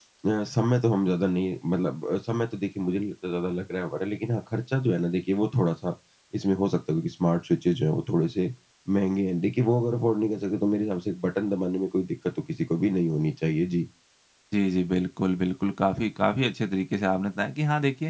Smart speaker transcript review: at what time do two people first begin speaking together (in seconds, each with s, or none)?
none